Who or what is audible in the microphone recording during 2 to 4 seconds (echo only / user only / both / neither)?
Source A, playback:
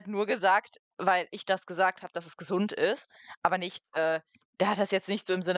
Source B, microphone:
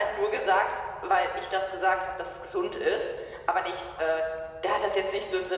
echo only